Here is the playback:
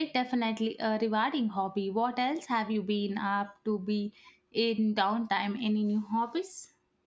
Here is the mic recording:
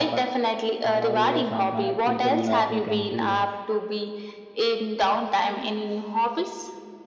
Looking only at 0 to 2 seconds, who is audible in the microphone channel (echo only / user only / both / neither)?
both